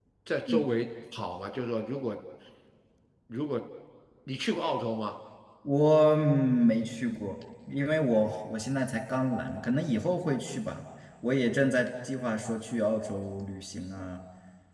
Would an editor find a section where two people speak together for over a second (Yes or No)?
No